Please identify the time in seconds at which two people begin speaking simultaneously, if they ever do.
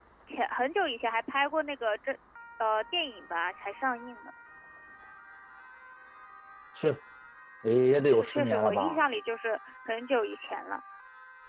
7.7 s

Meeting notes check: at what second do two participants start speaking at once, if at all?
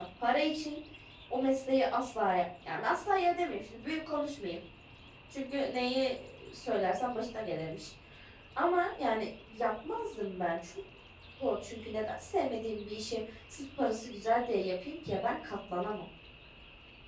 none

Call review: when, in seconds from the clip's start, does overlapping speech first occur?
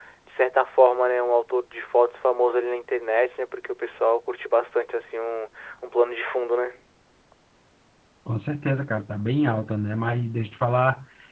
none

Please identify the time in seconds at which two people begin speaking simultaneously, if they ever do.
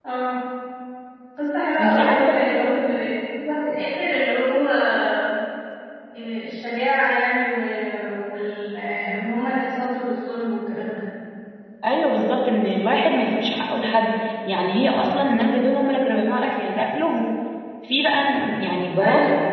1.8 s

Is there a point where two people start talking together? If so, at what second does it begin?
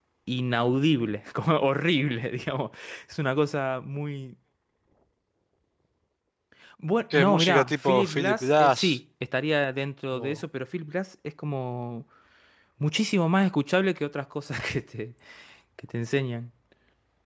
7.1 s

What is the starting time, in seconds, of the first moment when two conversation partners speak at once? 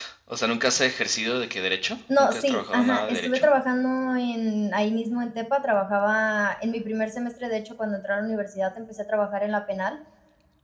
2.1 s

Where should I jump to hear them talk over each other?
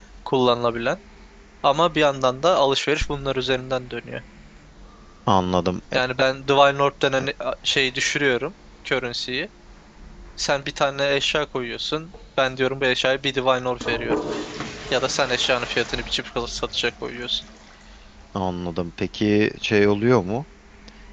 none

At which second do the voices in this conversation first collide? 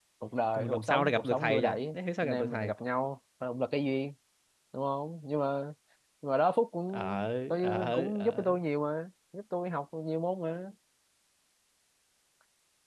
0.5 s

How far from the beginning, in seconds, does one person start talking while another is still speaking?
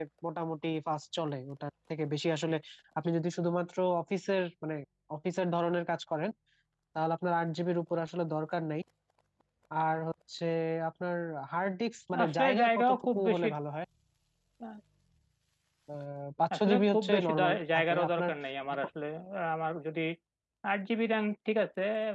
12.2 s

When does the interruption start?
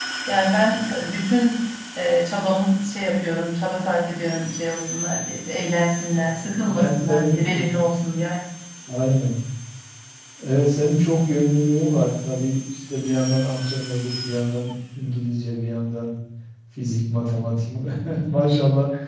6.2 s

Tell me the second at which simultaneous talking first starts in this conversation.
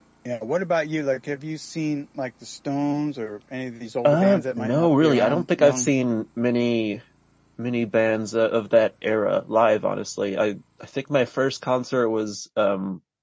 4.0 s

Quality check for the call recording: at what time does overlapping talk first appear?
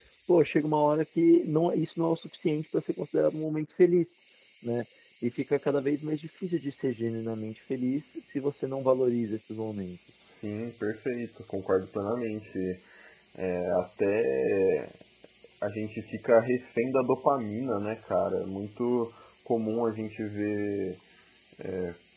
none

